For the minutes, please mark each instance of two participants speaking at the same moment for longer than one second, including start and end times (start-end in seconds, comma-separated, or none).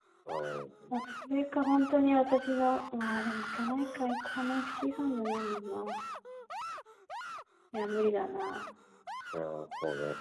none